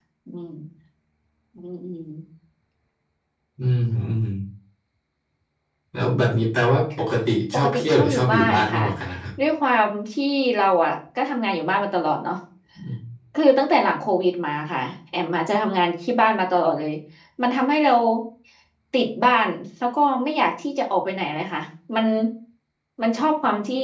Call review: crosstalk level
present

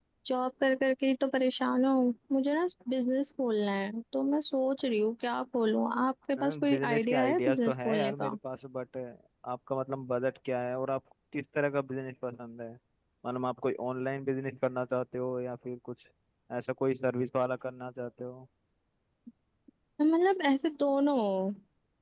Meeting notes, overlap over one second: present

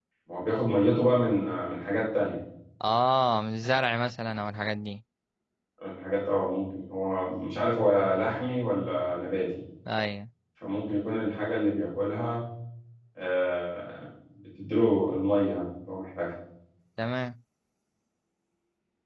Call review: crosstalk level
none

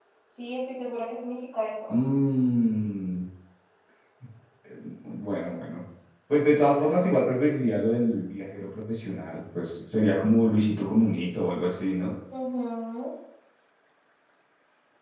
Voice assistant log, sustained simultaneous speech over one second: none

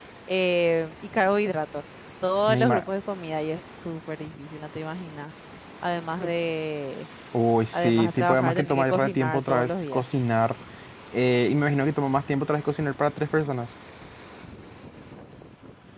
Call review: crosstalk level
present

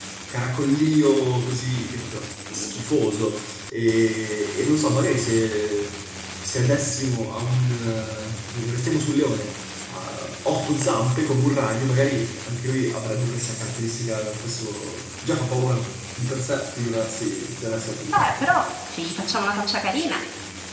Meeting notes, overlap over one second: none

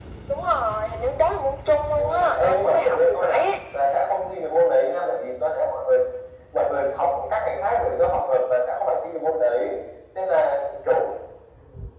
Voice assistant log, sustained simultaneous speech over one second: present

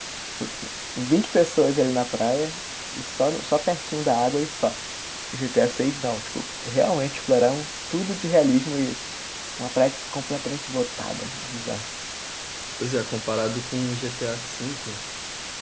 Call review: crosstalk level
none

